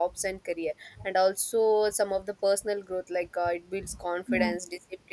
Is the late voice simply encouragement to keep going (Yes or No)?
Yes